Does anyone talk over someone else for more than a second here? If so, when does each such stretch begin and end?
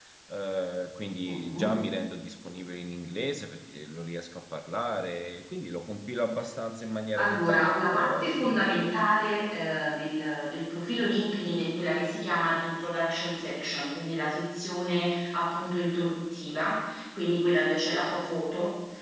7.2-8.9

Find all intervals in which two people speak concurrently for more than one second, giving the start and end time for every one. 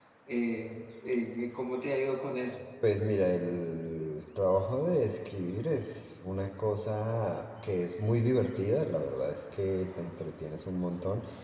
none

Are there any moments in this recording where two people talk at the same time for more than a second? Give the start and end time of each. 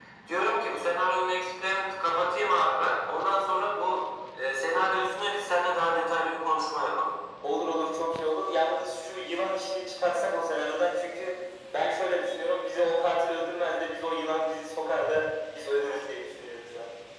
none

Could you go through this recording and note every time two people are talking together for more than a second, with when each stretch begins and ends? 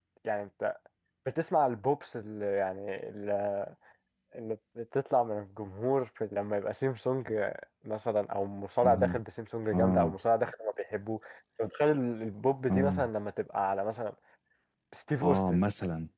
none

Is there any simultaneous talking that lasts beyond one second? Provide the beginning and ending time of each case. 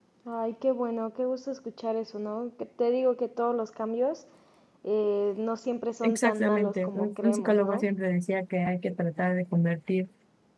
6.0-7.8

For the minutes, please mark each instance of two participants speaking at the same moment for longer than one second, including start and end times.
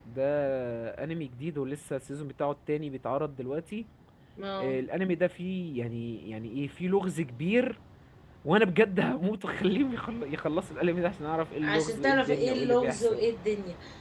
11.6-13.2

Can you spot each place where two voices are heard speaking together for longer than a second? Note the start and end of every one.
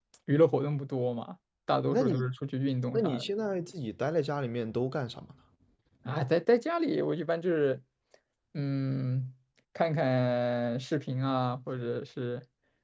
none

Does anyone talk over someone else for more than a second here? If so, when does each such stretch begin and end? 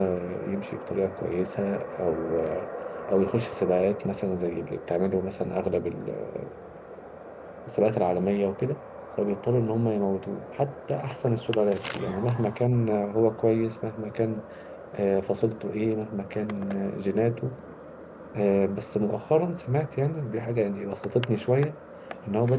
none

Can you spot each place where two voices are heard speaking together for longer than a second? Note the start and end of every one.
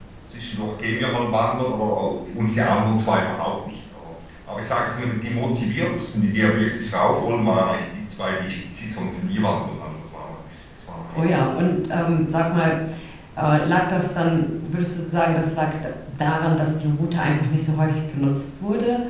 none

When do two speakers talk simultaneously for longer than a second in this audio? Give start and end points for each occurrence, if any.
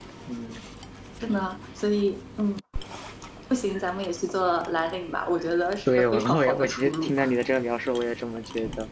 5.9-7.1

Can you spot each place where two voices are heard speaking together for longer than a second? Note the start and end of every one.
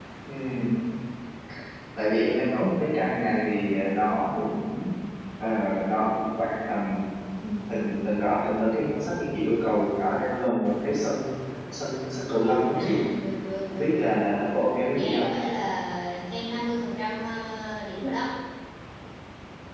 none

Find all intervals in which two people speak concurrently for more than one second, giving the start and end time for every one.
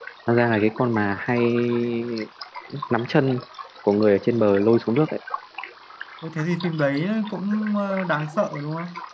none

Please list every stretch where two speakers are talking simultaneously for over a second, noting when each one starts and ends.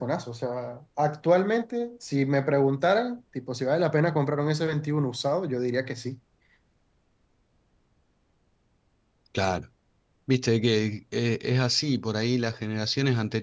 none

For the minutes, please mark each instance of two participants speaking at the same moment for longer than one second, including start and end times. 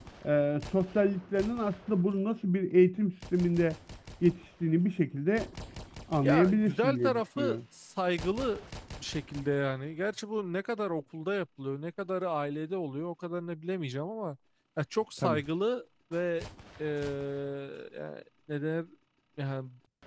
6.2-7.6

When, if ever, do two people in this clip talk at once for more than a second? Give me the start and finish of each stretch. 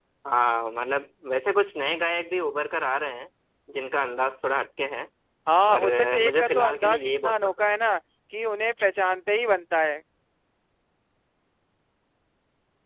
5.7-7.7

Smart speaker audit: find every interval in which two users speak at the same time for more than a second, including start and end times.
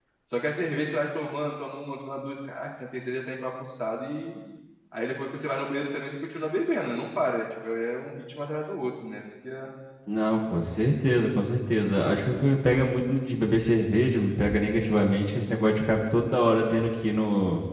none

